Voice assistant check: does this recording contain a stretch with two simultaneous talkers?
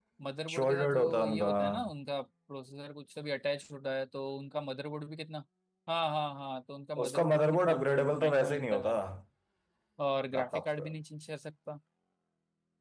Yes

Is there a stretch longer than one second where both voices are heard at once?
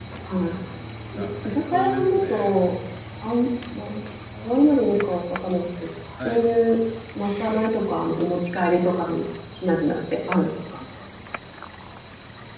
Yes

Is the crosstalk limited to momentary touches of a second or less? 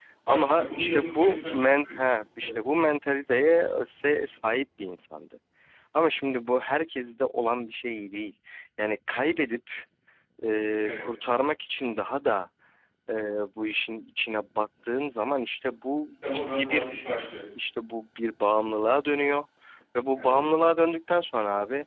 No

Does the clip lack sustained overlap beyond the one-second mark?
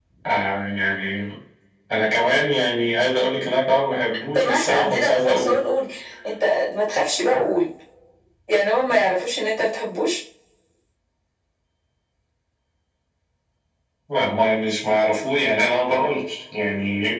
No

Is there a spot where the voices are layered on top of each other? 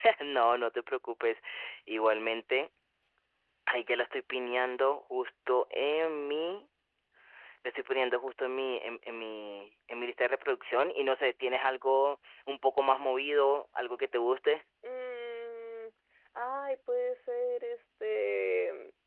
No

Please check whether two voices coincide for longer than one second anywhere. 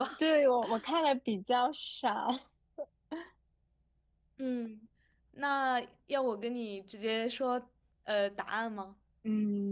No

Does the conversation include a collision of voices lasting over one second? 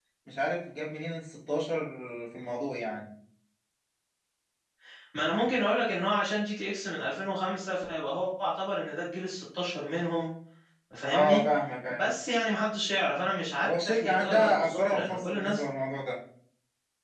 Yes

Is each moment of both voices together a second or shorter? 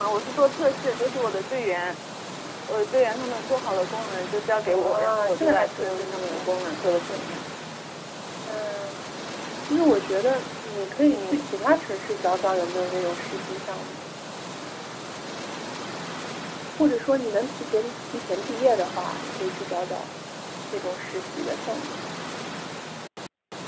No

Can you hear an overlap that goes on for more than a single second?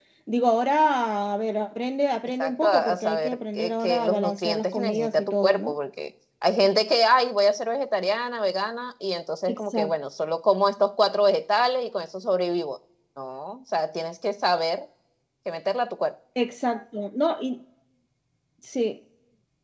Yes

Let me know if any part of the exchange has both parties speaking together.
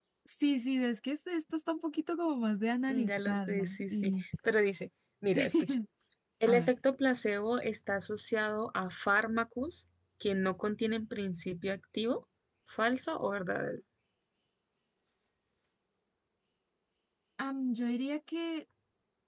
Yes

